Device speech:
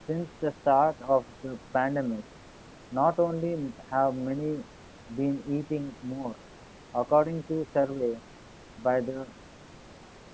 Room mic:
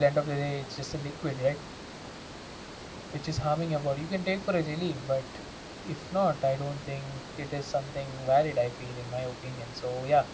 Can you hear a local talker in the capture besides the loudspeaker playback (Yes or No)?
Yes